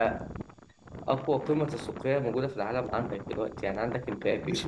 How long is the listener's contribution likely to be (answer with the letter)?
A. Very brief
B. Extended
B